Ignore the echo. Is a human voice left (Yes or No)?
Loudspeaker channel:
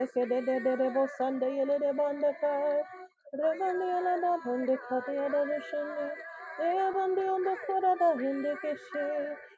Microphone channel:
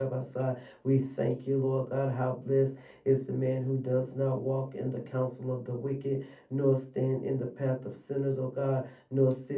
Yes